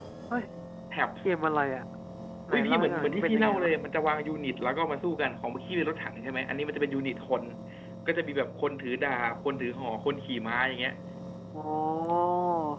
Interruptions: present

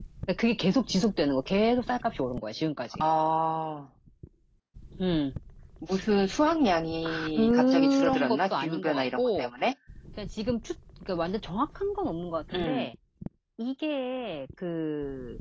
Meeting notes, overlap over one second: present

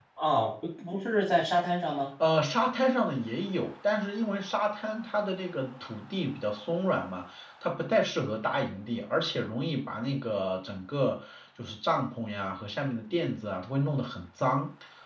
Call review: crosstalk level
none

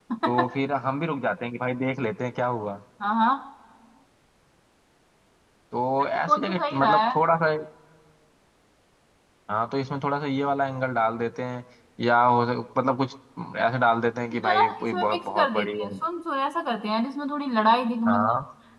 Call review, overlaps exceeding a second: present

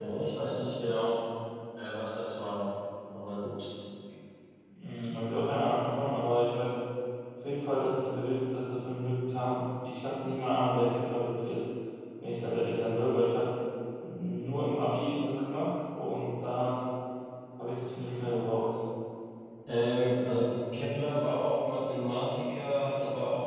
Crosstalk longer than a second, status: none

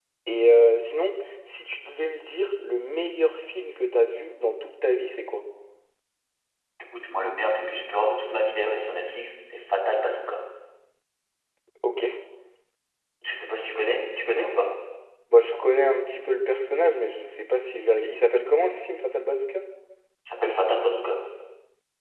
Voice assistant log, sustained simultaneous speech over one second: none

